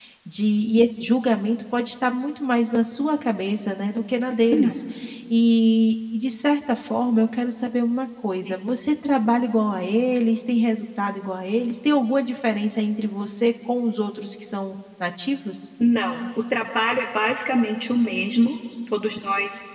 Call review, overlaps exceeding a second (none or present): none